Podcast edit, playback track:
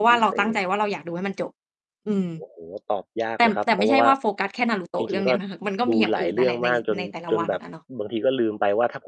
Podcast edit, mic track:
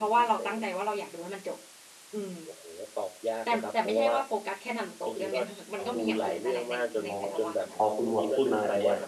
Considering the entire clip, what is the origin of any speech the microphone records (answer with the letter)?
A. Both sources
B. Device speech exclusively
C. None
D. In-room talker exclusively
A